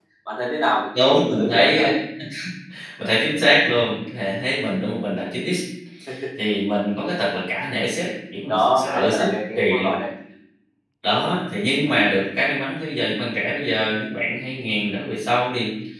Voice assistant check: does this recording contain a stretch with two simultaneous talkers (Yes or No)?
Yes